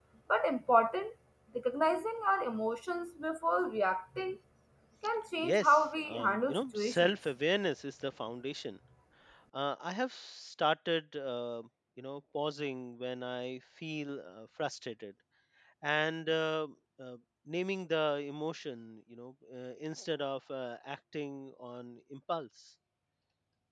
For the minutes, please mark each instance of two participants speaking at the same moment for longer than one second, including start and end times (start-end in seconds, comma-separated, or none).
5.4-7.1